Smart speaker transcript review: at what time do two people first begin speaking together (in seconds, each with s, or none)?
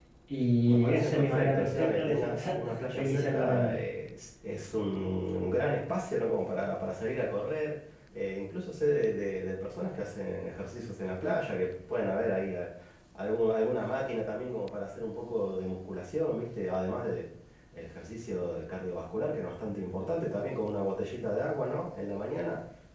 0.7 s